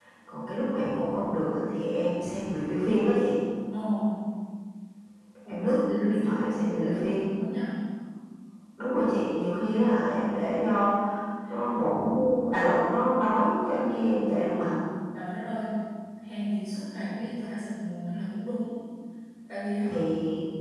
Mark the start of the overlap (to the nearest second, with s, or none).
5 s